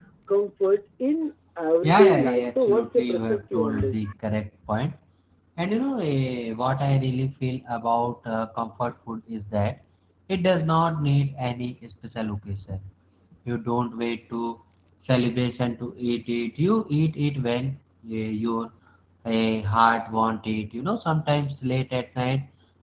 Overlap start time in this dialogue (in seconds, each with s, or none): 1.8 s